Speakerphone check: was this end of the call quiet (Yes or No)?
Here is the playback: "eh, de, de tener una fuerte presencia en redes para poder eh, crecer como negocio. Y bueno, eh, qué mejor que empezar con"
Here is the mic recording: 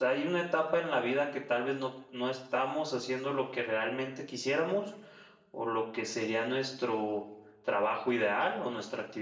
No